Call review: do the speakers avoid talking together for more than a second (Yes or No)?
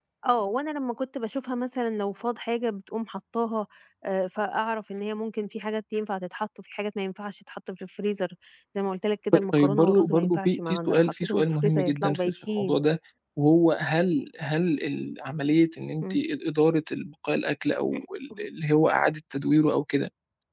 No